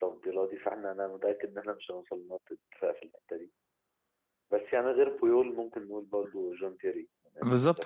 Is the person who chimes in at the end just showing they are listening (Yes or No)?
No